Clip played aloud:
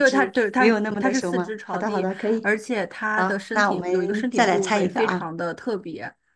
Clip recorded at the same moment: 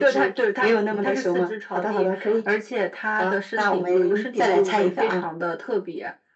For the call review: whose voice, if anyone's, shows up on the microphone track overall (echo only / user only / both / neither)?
echo only